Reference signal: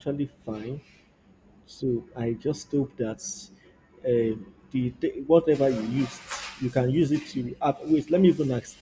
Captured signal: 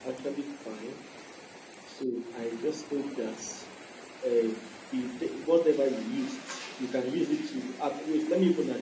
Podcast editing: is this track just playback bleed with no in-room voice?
Yes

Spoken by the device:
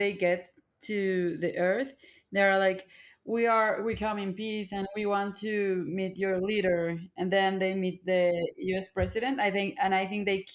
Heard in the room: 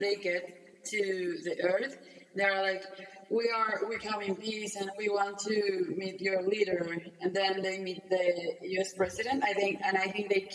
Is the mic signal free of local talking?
Yes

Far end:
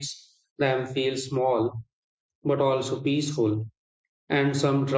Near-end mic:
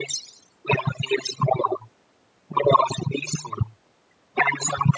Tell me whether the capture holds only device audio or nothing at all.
Yes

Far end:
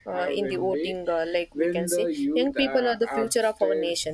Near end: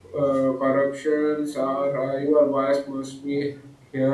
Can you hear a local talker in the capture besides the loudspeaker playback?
Yes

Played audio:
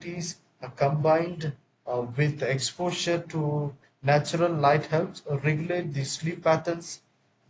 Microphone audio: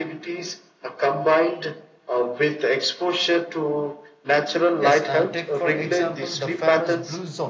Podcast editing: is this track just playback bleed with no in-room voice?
No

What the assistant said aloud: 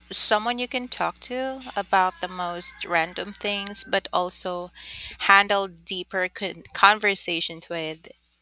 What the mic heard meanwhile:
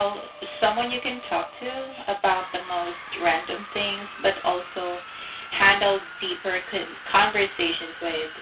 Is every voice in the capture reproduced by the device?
Yes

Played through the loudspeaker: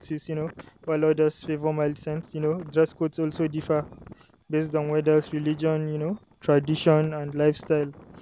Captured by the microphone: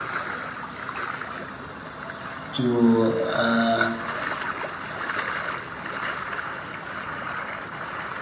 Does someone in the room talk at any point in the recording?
Yes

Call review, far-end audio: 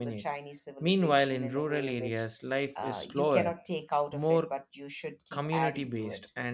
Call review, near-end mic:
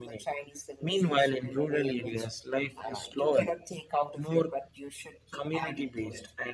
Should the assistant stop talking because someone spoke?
No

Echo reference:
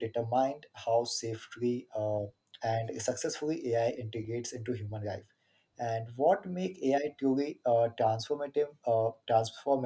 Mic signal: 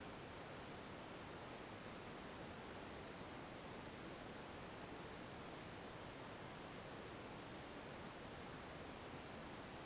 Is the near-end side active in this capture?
No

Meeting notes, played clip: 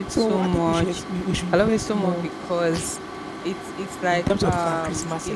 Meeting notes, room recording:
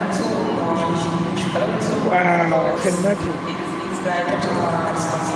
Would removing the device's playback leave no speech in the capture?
No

